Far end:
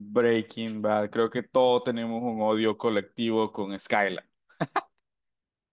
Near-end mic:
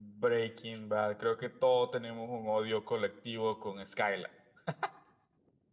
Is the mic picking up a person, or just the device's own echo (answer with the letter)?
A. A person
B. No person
B